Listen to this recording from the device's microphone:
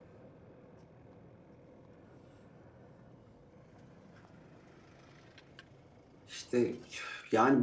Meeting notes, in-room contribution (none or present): present